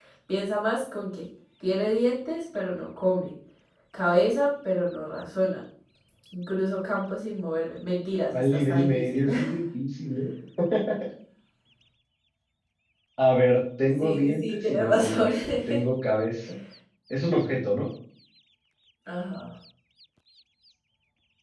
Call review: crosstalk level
present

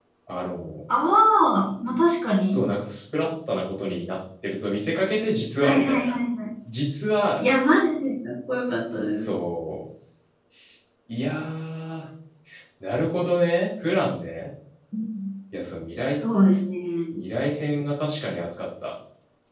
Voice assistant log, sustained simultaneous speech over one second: none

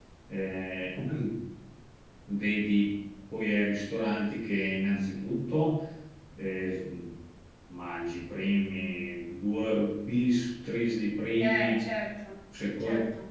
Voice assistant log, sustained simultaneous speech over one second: none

